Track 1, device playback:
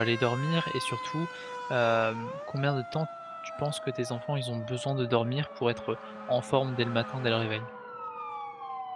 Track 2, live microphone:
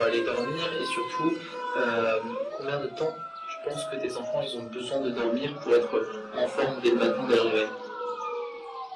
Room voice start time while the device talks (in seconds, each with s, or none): none